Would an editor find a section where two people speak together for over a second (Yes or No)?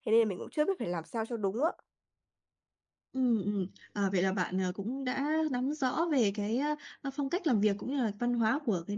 No